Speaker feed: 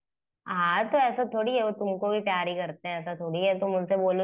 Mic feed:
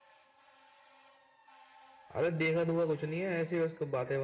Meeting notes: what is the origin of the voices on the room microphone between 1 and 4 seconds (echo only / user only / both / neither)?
user only